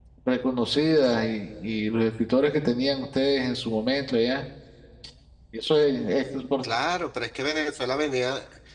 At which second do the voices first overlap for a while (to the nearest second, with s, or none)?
none